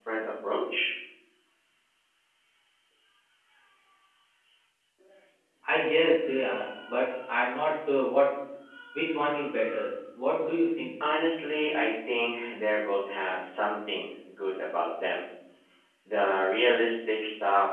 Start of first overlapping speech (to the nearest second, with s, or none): none